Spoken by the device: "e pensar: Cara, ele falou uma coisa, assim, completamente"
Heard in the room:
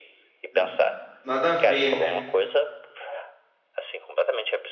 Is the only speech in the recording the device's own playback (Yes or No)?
No